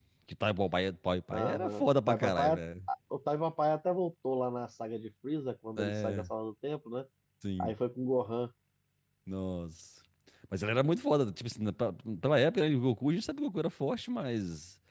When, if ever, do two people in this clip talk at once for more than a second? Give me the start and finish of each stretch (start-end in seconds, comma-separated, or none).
1.3-2.6